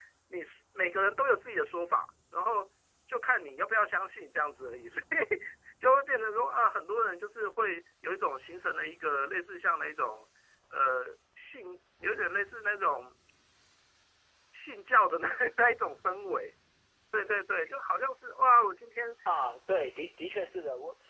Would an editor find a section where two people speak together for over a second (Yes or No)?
No